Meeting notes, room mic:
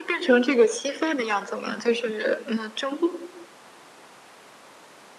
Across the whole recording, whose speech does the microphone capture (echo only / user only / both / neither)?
echo only